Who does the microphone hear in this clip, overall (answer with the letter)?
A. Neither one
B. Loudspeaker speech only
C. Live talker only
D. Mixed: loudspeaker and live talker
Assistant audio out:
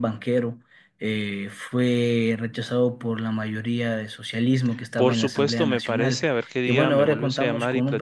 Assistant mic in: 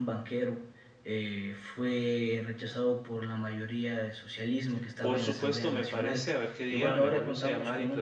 B